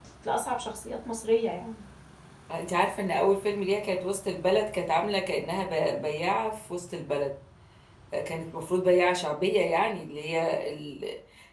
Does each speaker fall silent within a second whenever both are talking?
Yes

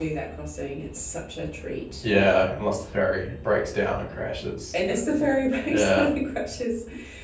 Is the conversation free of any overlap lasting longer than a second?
Yes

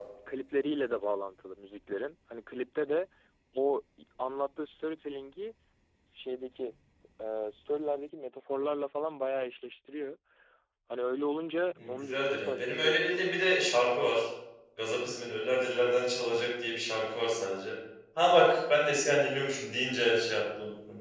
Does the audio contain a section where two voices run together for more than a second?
Yes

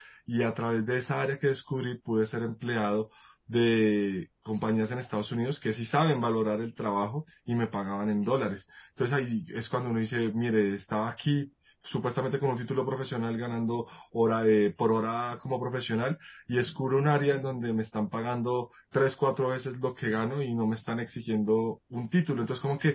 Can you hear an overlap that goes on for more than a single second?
No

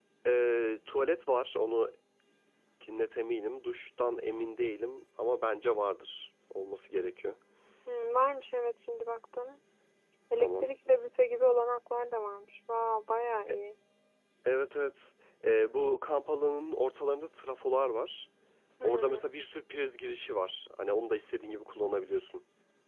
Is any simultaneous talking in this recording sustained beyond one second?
No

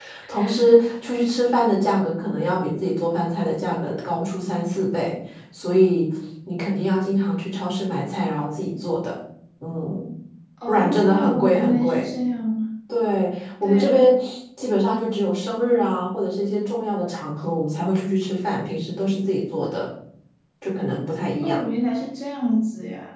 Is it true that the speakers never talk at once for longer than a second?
No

